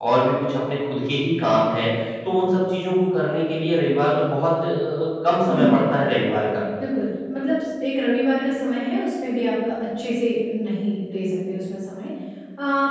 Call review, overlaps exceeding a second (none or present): none